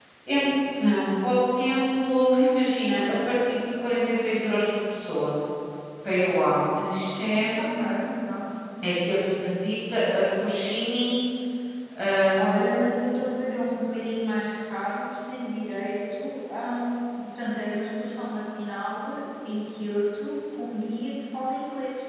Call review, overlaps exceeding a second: none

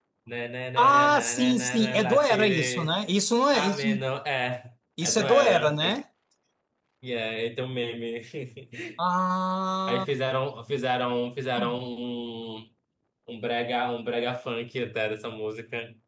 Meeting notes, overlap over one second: present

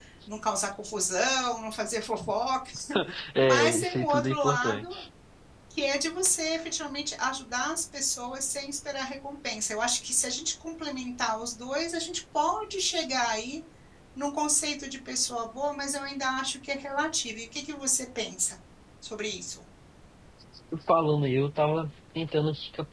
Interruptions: present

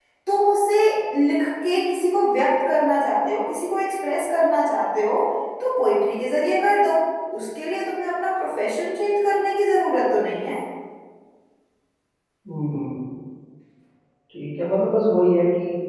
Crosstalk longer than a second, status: none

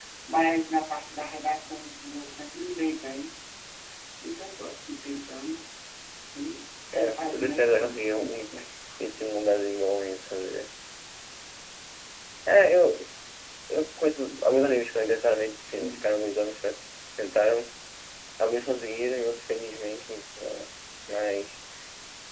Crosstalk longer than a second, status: present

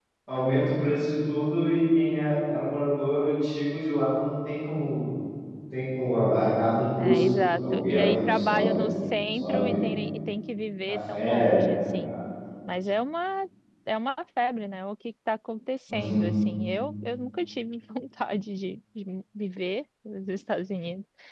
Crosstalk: present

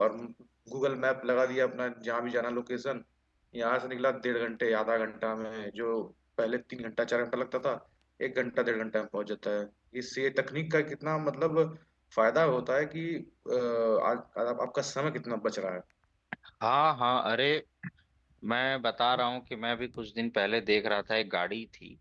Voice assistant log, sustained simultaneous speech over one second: none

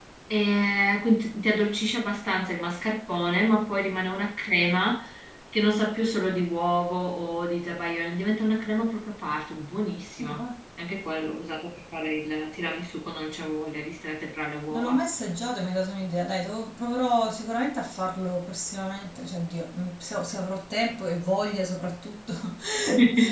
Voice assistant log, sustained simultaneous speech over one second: none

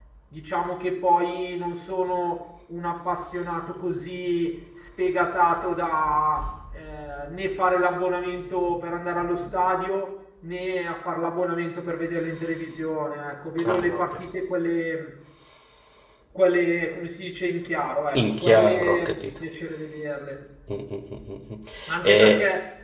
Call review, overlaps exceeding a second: present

